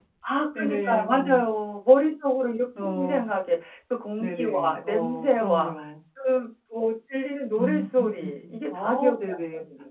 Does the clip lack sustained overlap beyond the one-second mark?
No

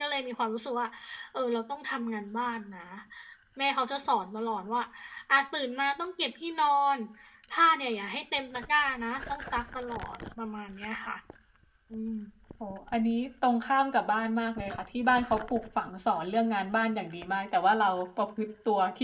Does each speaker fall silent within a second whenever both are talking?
Yes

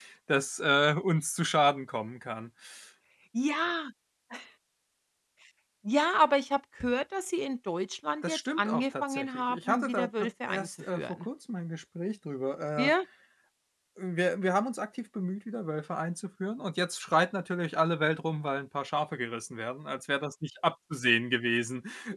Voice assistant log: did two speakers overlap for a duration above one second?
Yes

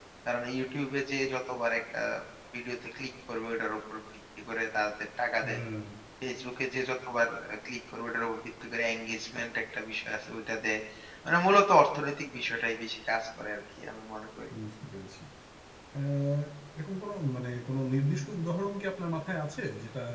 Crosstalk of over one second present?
No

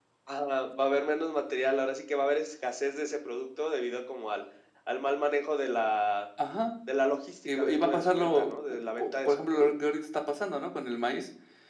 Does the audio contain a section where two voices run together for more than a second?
Yes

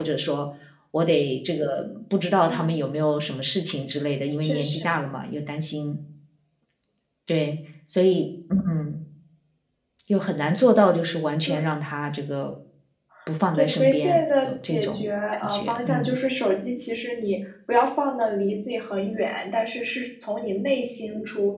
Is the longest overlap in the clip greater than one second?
Yes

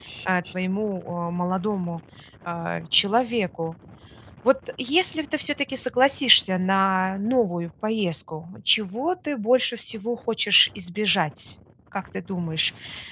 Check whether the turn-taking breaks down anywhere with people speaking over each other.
No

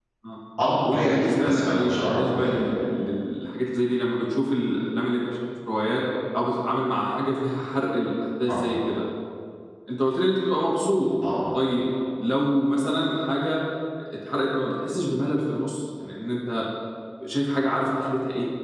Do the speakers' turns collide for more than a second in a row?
Yes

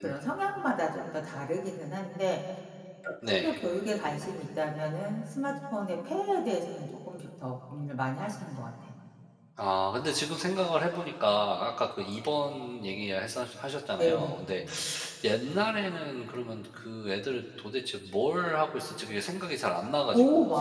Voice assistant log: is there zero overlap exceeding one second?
Yes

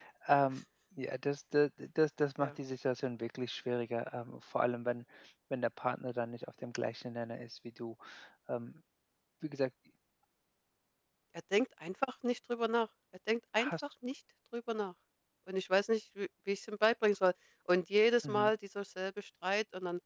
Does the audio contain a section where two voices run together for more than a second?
No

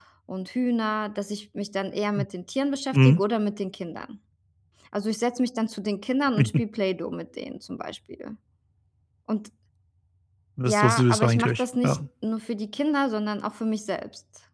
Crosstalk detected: Yes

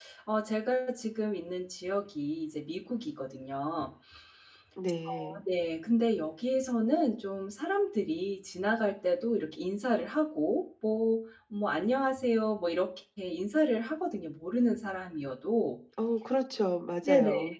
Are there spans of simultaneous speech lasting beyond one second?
No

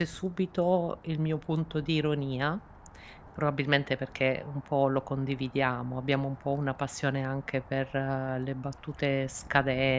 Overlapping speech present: No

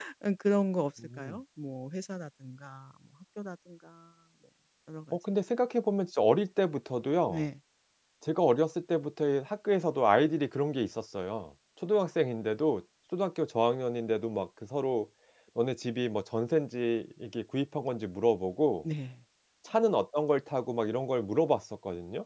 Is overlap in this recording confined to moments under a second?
Yes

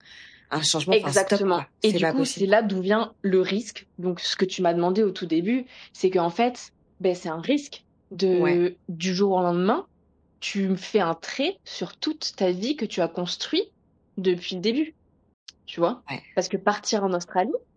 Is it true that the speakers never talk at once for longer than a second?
No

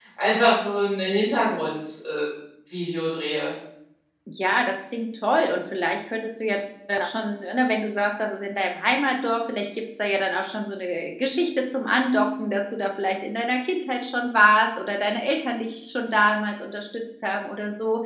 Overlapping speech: No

